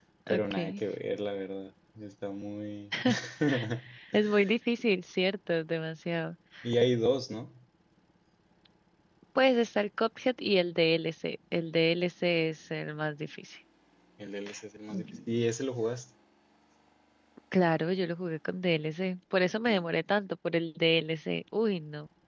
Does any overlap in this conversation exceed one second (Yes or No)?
No